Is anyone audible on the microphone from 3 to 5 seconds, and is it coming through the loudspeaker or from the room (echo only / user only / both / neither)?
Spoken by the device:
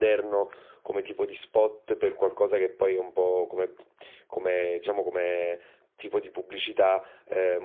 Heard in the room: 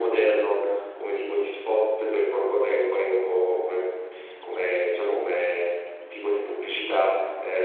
echo only